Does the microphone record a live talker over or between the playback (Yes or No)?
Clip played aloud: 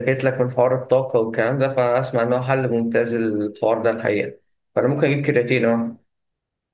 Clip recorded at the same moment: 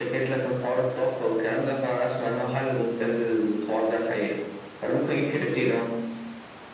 No